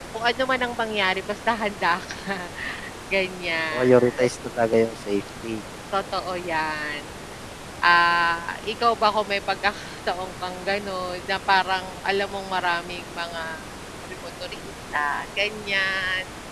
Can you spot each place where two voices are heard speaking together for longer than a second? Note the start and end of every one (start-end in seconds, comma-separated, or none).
none